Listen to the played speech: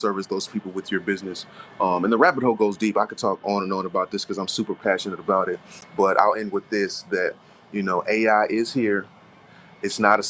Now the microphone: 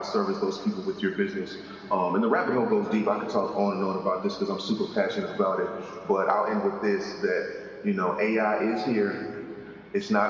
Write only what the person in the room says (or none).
none